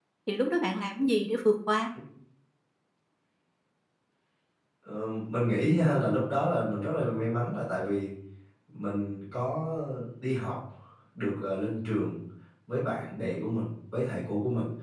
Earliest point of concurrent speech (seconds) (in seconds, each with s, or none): none